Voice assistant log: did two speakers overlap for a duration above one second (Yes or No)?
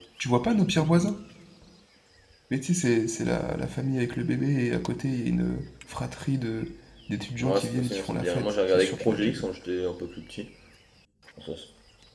Yes